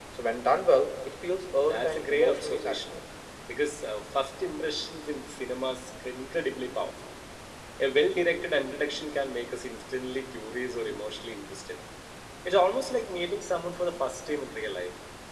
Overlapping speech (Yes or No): Yes